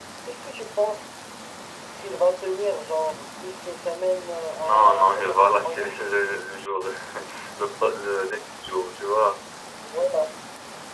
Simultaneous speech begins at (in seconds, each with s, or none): 4.6 s